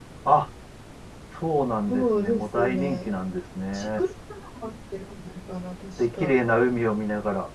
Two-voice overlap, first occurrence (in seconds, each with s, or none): 1.9 s